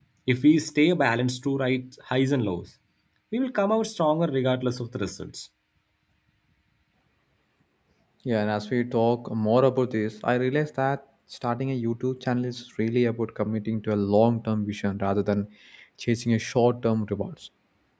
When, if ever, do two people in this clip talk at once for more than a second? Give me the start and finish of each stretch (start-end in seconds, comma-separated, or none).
none